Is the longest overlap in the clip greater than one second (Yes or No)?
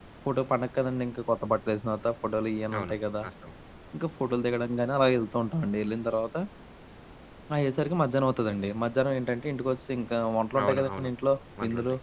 No